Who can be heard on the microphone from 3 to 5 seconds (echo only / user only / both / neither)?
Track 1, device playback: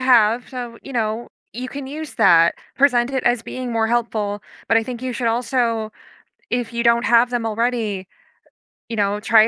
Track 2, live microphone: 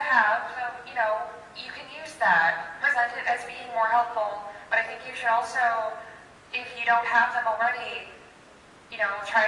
echo only